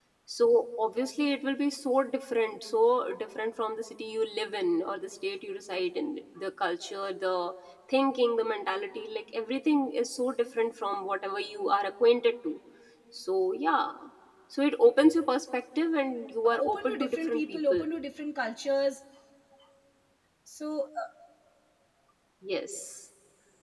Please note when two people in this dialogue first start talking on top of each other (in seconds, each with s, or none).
16.4 s